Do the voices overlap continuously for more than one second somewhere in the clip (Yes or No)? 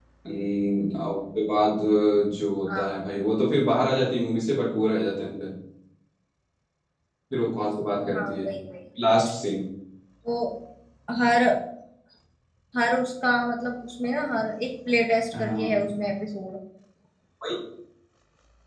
No